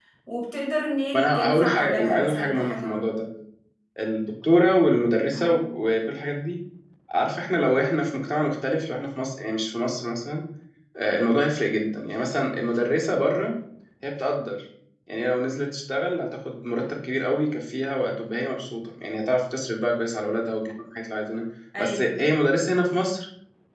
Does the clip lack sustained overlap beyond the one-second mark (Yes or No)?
No